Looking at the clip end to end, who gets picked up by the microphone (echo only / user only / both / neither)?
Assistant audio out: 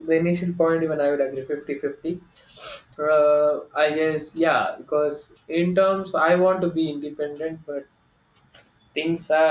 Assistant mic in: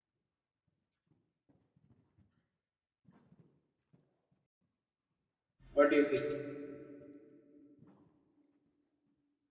user only